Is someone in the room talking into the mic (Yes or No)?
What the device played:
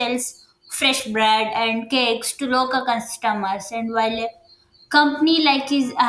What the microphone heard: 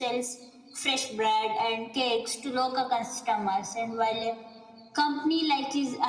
No